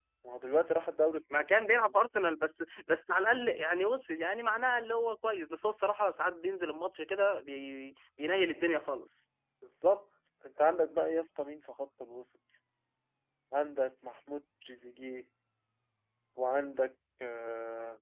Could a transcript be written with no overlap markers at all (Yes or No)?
Yes